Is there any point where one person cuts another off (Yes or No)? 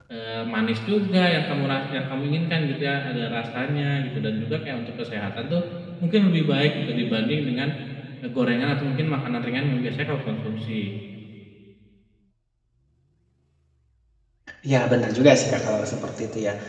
No